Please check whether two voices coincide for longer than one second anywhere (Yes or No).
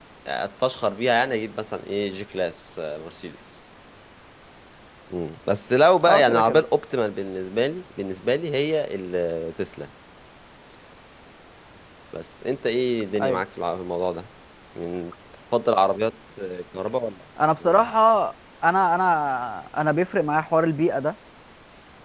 No